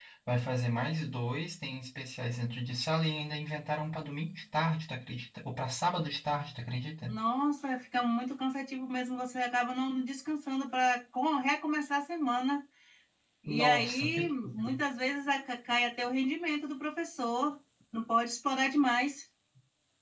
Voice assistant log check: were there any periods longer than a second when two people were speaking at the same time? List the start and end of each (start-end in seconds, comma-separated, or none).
13.5-14.8